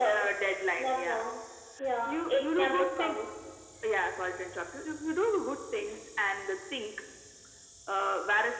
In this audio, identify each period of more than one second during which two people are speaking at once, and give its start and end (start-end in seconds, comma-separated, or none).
2.0-3.3